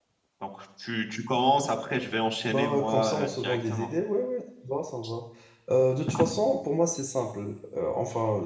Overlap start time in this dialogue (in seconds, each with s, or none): 2.5 s